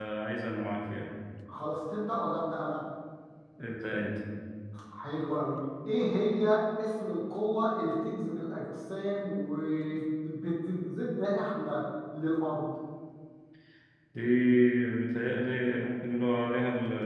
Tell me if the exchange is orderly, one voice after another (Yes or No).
Yes